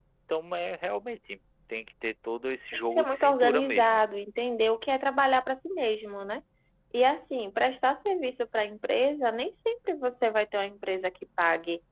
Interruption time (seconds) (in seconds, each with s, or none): 2.7 s